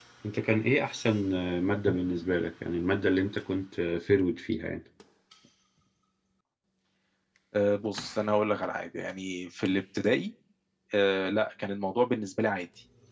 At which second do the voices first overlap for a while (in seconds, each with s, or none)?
none